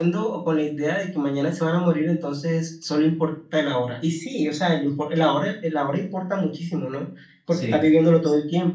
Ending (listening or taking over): listening